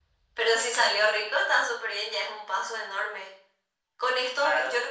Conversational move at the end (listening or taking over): listening